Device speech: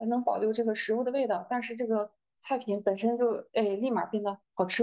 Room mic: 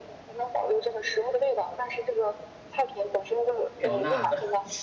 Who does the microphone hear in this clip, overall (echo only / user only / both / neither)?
both